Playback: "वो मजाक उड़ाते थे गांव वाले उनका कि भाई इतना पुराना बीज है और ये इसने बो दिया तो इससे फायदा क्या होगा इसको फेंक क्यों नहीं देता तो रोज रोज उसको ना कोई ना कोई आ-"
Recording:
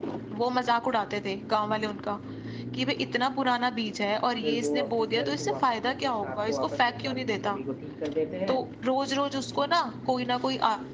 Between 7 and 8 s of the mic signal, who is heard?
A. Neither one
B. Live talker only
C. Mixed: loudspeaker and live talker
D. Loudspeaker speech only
C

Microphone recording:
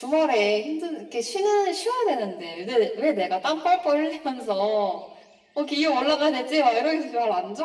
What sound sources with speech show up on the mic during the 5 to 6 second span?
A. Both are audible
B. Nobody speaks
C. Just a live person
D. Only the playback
D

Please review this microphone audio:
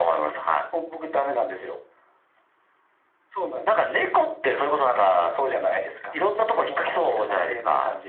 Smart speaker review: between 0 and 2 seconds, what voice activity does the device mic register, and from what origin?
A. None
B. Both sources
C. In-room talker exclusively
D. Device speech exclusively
D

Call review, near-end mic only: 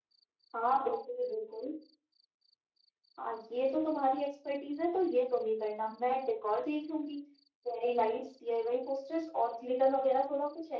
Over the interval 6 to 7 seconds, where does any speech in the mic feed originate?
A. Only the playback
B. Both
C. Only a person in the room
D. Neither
A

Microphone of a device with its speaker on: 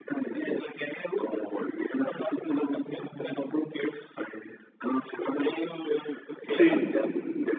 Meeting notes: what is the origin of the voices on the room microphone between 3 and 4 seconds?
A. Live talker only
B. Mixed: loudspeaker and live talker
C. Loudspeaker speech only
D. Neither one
C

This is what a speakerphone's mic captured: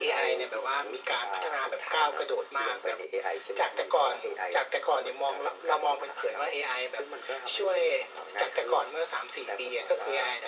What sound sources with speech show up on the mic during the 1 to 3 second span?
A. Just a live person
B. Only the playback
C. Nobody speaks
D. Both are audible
B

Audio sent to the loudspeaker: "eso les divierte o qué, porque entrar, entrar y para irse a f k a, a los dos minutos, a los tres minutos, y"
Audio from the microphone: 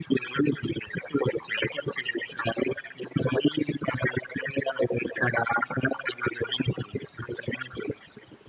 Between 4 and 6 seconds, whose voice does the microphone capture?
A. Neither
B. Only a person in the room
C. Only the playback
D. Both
C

